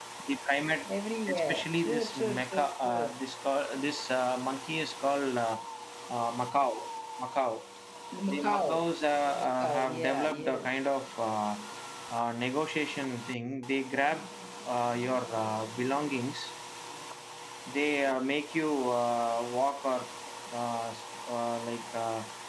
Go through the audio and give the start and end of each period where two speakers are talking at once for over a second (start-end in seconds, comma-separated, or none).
1.3-3.2, 9.2-10.7